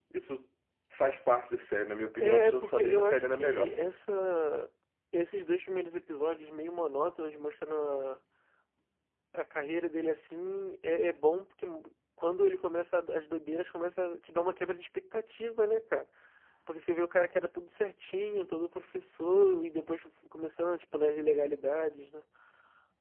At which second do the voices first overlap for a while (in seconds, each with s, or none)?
2.2 s